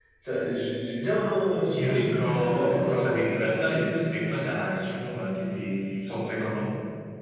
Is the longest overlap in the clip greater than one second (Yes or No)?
Yes